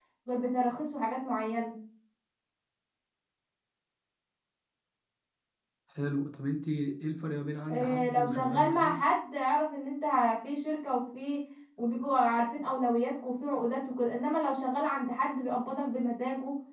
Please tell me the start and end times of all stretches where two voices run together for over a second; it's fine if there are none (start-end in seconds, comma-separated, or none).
7.7-9.0